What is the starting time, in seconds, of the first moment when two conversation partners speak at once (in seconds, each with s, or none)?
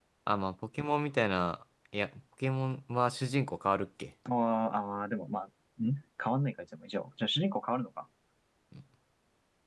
none